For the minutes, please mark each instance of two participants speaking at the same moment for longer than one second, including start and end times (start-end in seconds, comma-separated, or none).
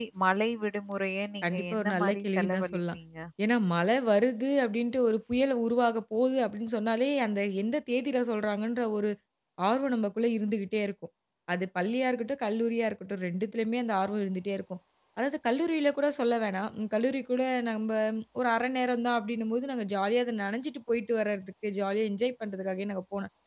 1.4-3.0